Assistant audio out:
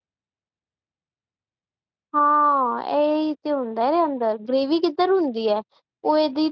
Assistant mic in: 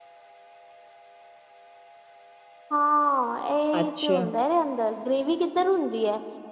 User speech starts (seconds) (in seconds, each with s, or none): 3.8 s